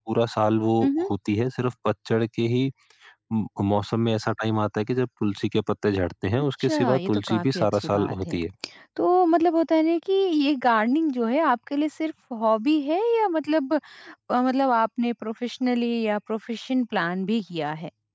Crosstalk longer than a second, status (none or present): present